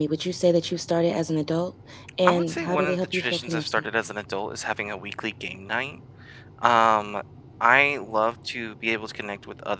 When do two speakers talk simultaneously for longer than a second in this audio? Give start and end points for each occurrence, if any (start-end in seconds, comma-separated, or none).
2.3-3.9